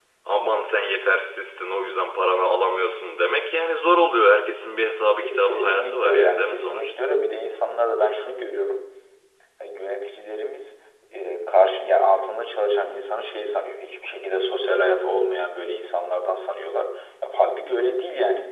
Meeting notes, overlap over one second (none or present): present